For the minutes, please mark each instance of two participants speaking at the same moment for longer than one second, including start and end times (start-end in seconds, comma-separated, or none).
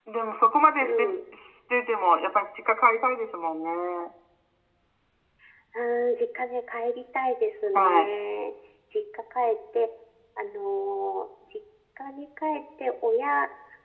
none